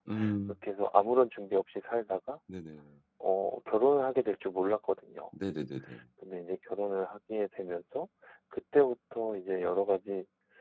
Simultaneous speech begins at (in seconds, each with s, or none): none